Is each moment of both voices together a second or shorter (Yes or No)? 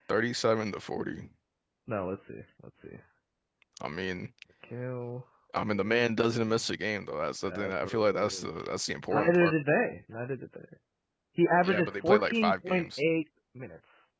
No